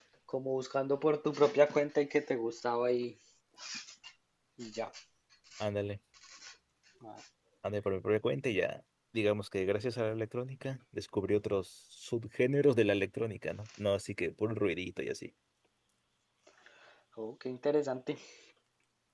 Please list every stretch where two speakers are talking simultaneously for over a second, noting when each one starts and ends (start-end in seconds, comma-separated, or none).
none